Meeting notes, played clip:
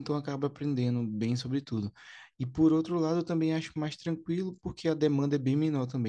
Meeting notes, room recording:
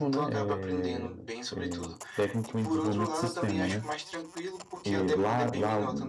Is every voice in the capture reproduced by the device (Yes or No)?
No